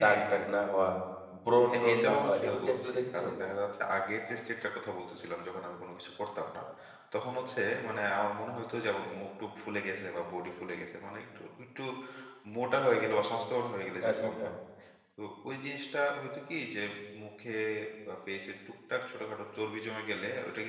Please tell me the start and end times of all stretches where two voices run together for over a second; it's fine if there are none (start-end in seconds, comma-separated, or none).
1.6-3.3